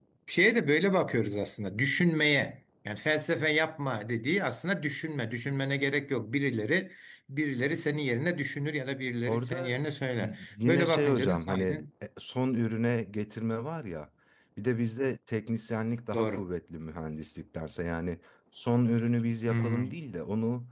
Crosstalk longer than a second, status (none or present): present